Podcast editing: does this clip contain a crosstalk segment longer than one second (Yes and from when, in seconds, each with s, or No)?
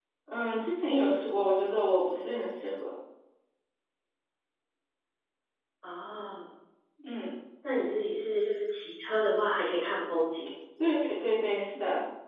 No